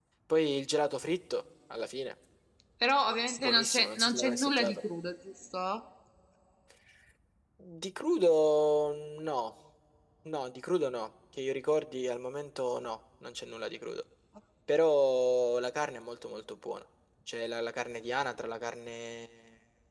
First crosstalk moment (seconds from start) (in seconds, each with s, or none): 3.4 s